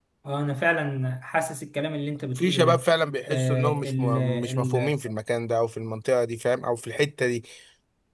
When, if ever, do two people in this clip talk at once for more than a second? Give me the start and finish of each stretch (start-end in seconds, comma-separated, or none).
3.2-4.9